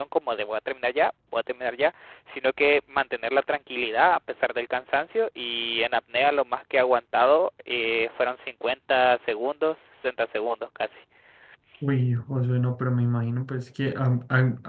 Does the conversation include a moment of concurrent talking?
No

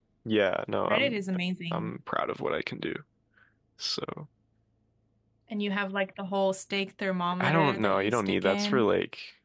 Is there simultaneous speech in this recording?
Yes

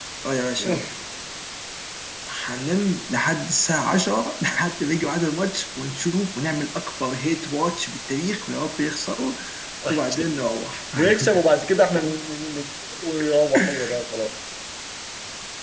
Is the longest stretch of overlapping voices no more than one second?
Yes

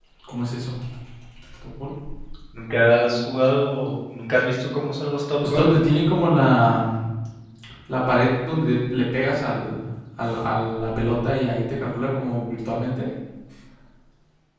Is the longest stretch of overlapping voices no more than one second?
Yes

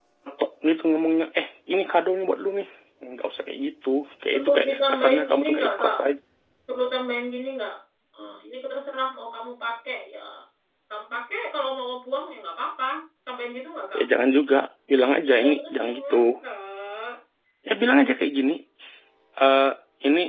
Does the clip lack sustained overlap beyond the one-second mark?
No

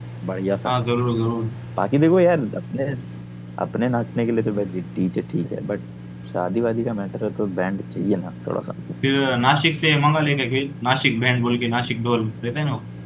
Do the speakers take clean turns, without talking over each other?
Yes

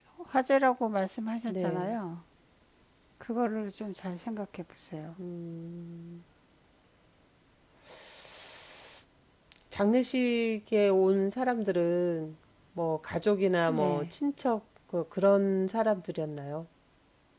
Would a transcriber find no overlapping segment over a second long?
Yes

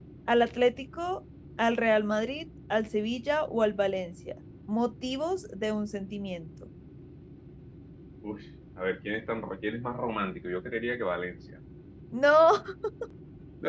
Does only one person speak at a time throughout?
Yes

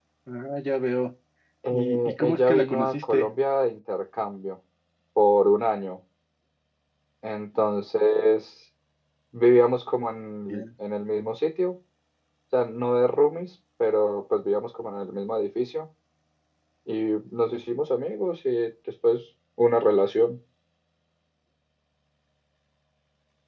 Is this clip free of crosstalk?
No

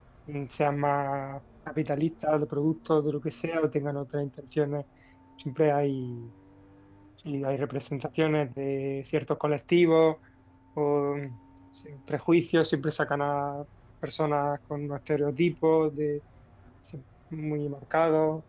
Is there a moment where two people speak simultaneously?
No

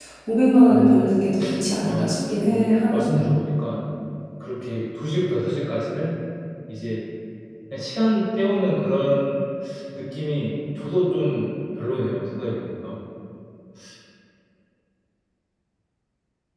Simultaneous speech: Yes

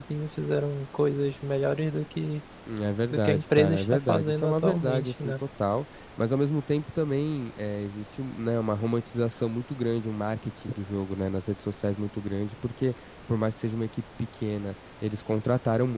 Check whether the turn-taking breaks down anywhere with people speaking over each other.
Yes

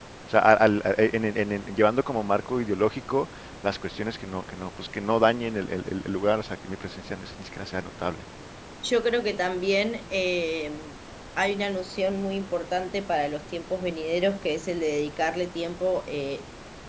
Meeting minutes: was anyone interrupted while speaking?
No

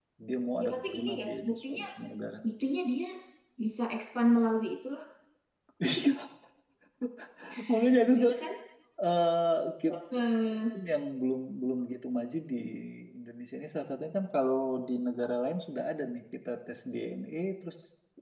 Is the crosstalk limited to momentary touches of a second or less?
No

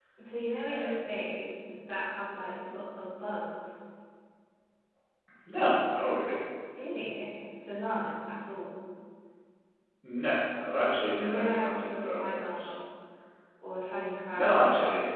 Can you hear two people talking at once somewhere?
Yes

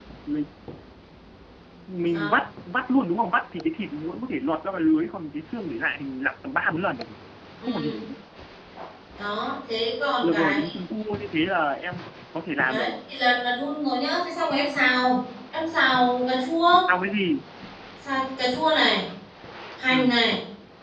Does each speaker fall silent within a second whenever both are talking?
Yes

